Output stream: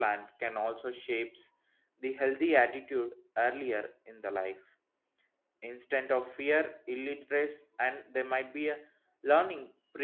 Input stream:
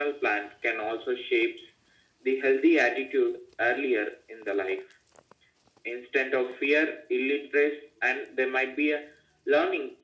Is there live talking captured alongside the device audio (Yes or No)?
No